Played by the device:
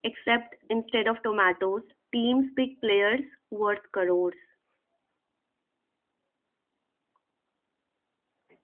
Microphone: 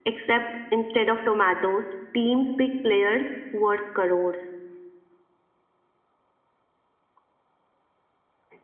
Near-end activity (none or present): none